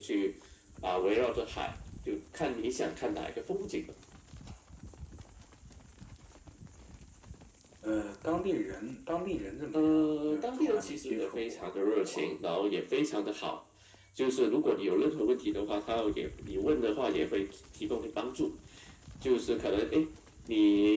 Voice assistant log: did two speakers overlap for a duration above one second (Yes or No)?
Yes